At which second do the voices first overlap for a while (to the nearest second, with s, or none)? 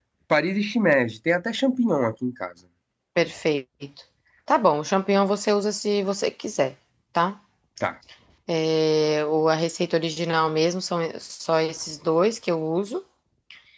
none